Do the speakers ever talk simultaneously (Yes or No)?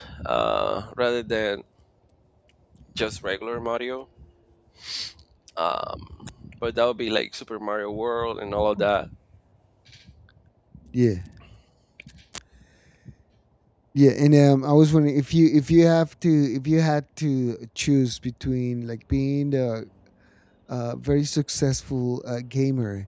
No